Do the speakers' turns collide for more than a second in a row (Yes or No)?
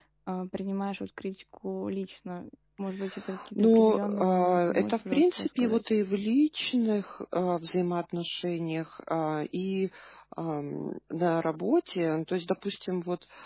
Yes